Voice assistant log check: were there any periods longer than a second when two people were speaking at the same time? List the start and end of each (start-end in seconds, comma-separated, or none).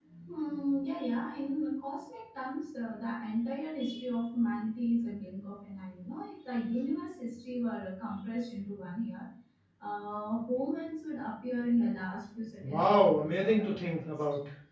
12.6-14.1